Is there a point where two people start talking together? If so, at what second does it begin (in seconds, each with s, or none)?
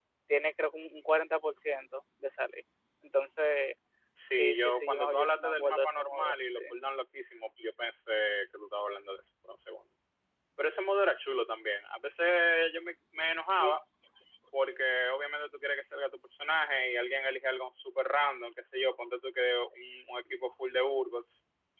4.3 s